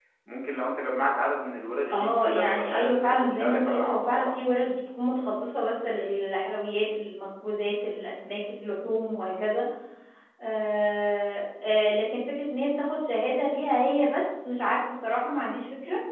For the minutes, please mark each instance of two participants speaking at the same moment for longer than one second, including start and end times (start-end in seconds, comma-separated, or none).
1.9-4.4